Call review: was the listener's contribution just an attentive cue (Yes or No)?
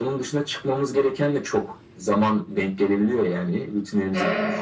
Yes